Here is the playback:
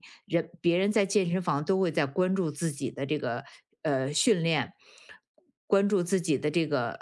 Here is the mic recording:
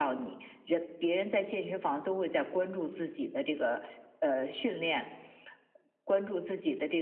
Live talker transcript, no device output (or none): none